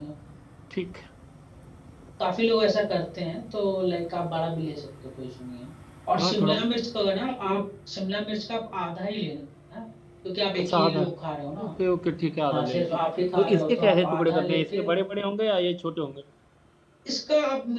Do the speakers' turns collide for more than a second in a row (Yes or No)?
Yes